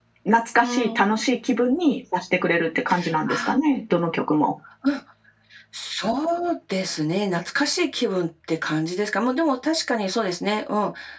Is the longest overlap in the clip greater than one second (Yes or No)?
No